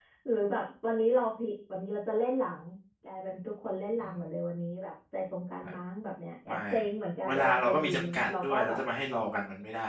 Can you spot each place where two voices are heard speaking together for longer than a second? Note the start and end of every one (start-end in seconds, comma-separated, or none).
7.3-8.8